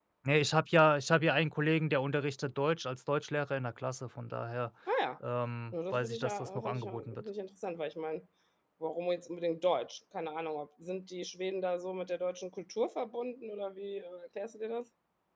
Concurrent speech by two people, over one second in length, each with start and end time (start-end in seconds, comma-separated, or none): 5.7-7.2